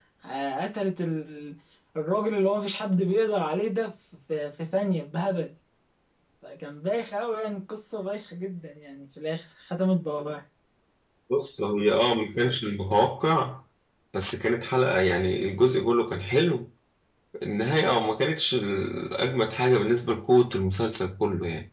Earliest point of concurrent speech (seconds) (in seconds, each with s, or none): none